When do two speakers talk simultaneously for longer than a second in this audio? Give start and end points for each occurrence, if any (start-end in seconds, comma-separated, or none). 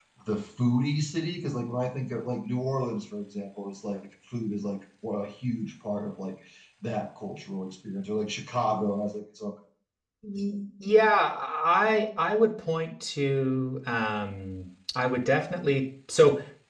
none